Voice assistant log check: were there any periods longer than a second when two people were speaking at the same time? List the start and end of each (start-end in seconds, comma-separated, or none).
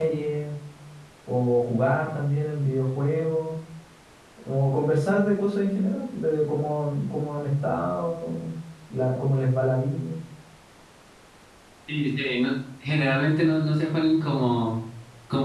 none